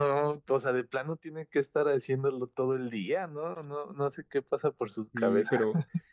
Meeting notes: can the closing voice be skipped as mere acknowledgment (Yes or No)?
No